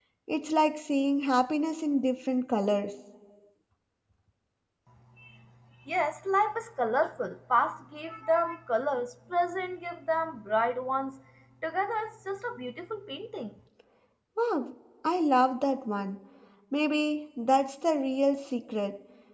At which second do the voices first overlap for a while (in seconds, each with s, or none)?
none